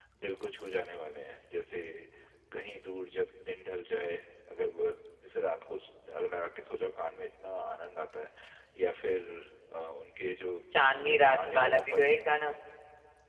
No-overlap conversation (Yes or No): No